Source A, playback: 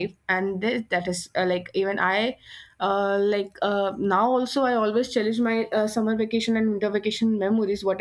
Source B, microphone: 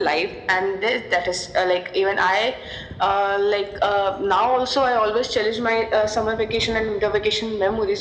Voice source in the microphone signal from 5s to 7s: echo only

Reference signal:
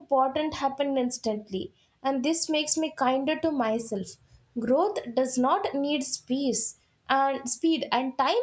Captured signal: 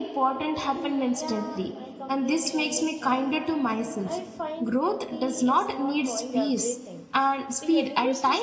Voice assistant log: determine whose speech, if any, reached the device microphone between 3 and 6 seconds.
both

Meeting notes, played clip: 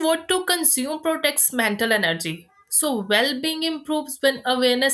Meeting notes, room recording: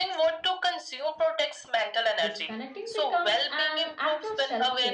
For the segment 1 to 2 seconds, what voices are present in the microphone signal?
echo only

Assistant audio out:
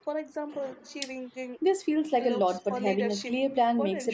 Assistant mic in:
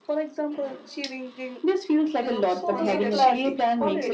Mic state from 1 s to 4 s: both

